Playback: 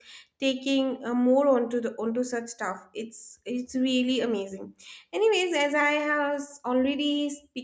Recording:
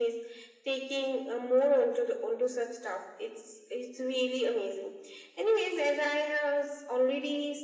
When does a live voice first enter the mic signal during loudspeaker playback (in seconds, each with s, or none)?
none